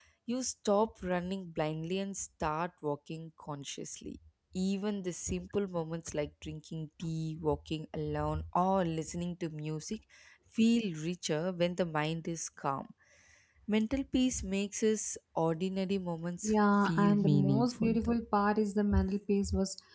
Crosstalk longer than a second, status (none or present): present